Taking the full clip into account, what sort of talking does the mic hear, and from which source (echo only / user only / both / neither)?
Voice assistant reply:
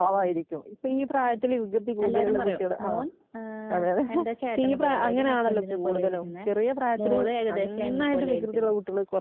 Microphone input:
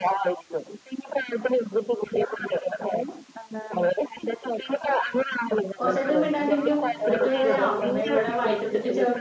both